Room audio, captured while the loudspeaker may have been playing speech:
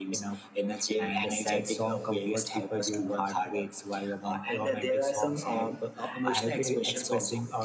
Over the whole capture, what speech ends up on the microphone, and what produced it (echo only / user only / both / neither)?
both